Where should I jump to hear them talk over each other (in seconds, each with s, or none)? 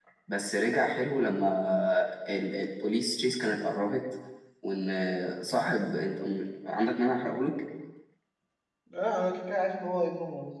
none